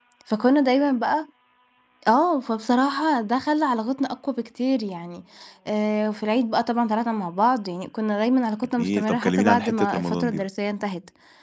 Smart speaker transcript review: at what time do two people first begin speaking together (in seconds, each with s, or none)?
8.8 s